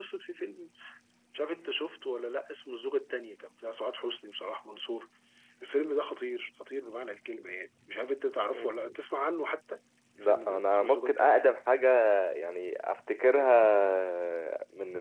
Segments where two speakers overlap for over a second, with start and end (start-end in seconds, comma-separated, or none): 10.2-11.5